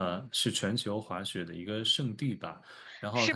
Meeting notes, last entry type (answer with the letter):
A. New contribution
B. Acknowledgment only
A